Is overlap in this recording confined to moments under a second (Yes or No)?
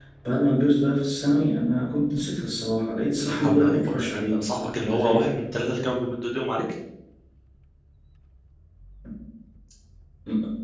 No